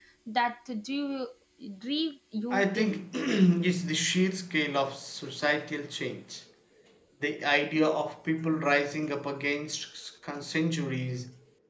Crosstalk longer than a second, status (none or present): none